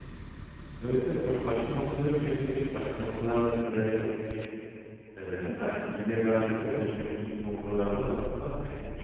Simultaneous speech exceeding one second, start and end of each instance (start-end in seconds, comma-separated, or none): none